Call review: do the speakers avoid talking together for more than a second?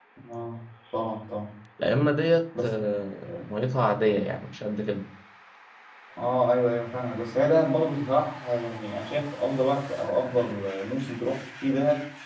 Yes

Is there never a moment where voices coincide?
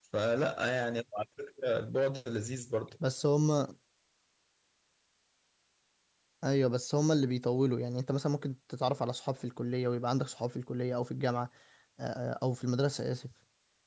Yes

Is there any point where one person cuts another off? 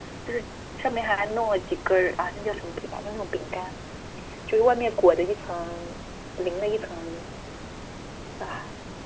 No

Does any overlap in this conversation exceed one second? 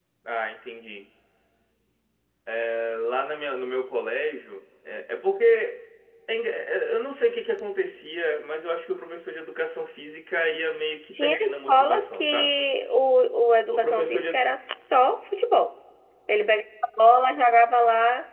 Yes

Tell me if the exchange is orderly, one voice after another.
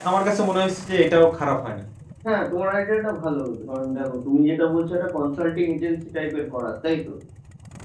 Yes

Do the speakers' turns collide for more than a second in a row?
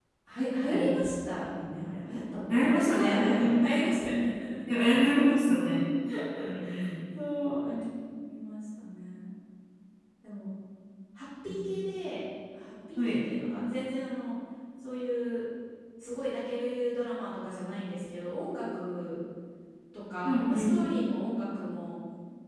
Yes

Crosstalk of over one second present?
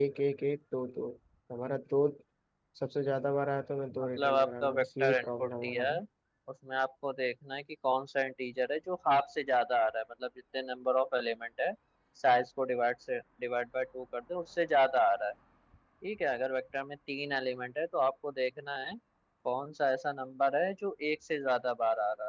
Yes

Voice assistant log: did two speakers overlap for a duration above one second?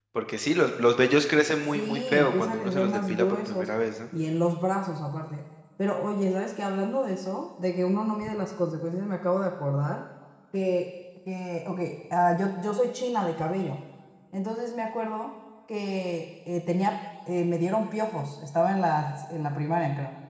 Yes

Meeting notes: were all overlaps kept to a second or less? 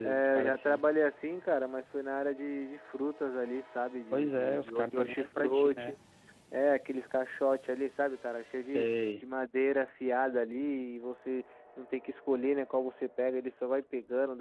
No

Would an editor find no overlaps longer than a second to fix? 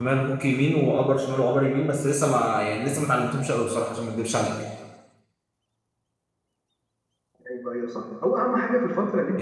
Yes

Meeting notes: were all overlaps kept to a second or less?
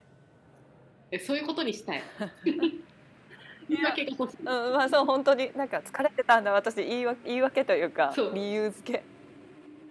Yes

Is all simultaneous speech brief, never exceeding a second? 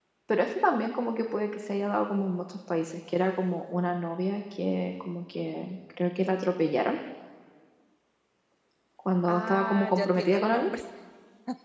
No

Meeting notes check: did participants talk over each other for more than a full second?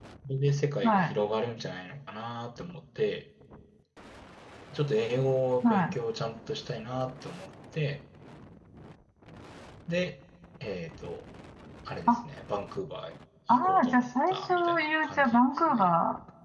Yes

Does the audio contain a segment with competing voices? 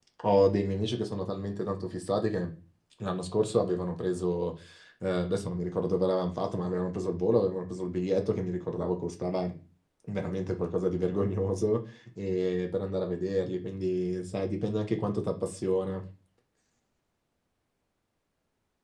No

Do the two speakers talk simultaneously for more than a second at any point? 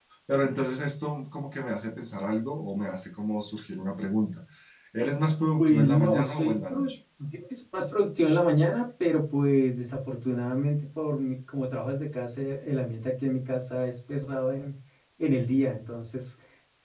Yes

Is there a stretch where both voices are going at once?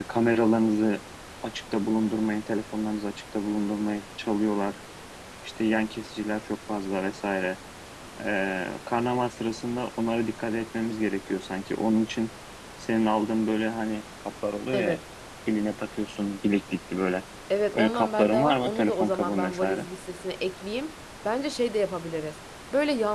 Yes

